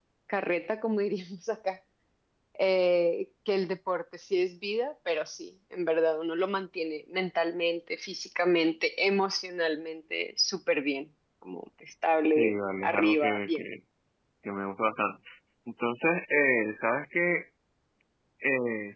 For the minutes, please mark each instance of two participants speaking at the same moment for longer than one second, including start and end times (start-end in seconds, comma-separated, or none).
12.3-13.6